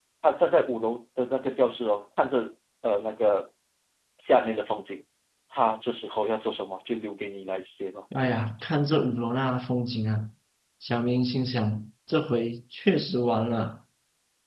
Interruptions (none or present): none